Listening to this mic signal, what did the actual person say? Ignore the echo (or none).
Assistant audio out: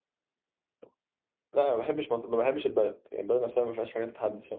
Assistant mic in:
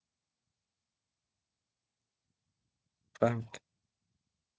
فاهمك